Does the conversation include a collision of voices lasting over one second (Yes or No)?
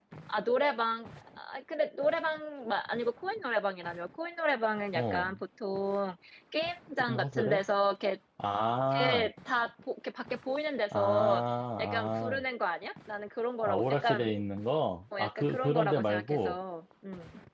Yes